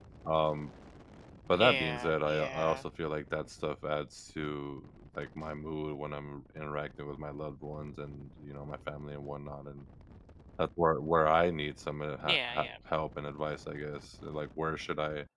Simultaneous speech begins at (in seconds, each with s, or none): 1.5 s